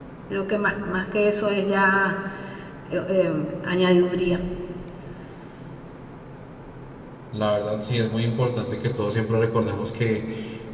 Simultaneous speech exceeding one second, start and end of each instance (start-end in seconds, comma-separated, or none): none